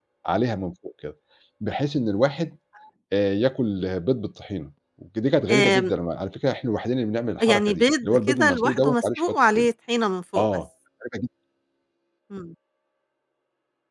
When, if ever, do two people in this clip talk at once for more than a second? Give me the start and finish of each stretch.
7.4-9.7

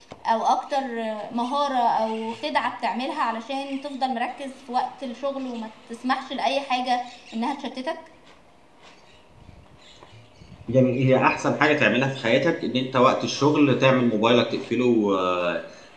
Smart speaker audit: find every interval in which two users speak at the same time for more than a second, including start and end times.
none

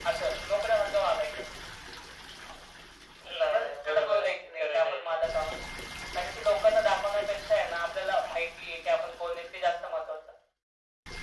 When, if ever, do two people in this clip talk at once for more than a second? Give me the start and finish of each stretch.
3.5-5.2

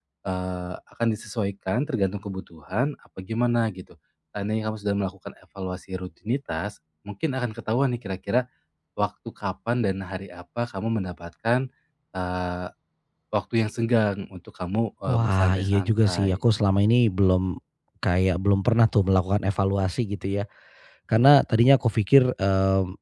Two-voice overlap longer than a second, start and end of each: 15.1-16.4

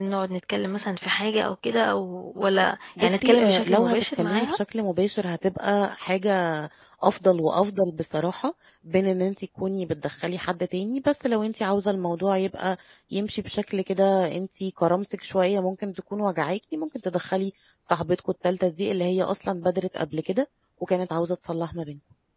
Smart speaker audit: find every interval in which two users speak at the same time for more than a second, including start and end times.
3.0-4.6

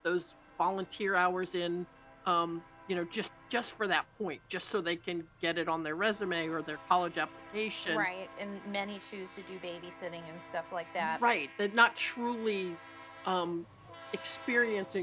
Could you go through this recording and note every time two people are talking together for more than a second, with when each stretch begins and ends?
none

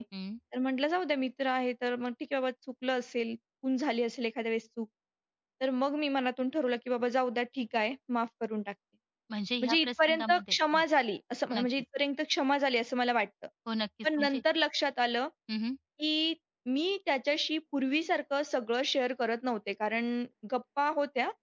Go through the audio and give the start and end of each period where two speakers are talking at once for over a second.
9.6-10.8

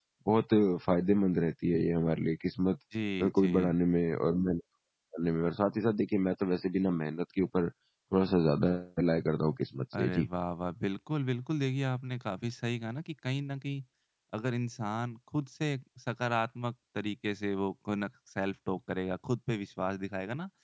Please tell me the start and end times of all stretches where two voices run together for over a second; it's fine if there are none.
none

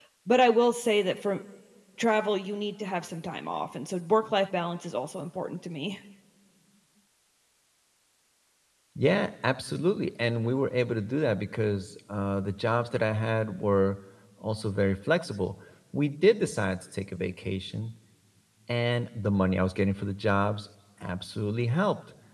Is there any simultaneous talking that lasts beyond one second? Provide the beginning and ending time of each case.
none

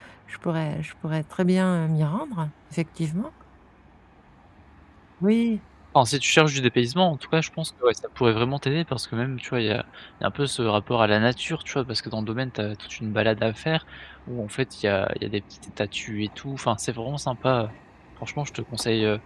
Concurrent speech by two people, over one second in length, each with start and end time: none

